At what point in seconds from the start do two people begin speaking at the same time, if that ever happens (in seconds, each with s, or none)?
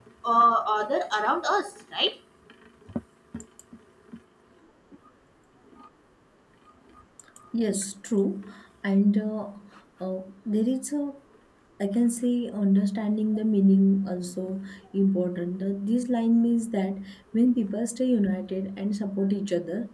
none